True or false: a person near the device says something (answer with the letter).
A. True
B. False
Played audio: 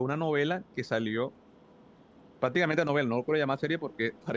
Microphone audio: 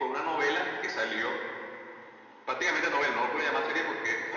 B